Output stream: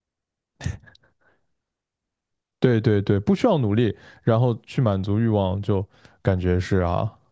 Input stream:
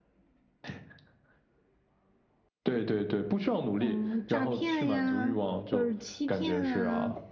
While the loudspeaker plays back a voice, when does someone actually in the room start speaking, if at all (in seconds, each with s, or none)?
3.8 s